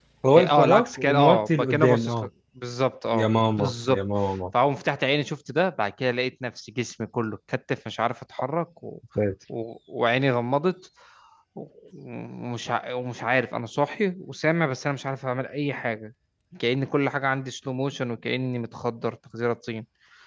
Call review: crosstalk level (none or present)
present